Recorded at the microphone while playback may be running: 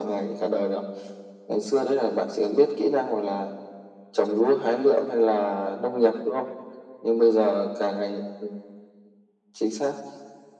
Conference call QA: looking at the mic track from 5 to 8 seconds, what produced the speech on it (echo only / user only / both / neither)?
echo only